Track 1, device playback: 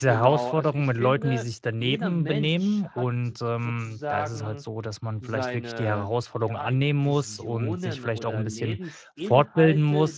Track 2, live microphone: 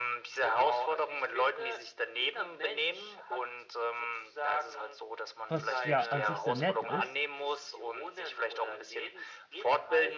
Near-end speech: present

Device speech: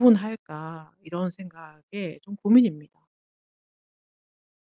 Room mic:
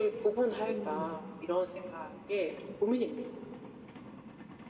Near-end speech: present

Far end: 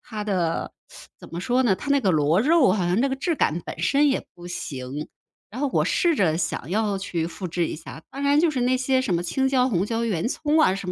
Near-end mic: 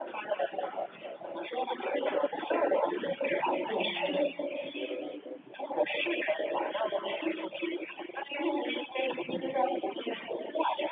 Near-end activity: present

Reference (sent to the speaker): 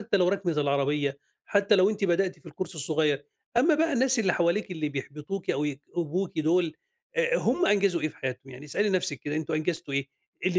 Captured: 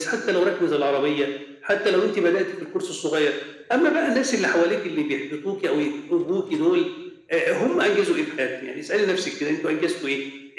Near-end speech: none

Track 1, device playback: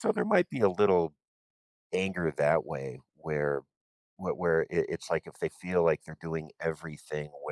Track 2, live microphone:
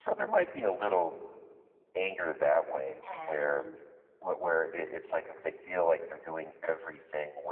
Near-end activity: present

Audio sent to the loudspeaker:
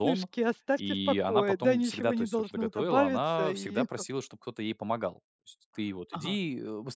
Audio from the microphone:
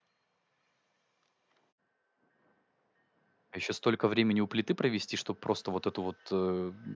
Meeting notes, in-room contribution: present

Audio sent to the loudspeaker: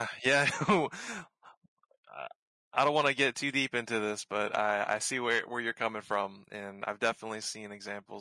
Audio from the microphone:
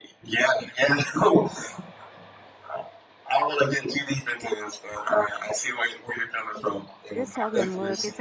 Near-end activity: present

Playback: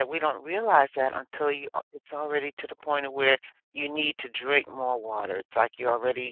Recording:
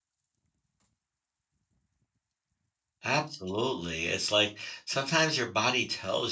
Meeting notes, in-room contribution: present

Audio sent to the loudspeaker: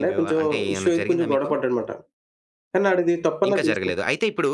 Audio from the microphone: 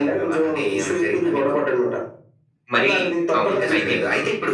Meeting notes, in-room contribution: present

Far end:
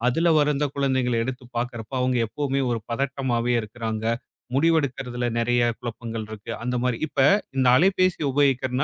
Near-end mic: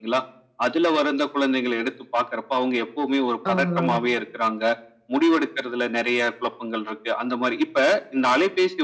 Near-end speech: present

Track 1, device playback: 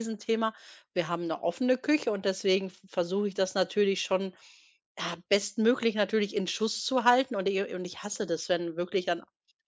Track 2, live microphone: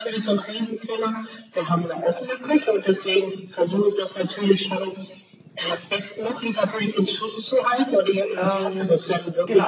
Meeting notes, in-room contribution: present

